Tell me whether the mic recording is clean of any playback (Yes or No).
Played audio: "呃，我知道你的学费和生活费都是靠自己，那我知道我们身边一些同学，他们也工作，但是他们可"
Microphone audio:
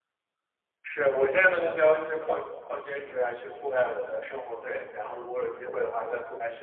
Yes